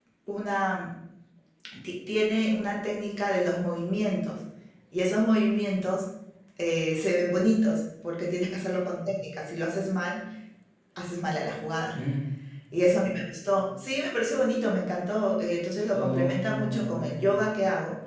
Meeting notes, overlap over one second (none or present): present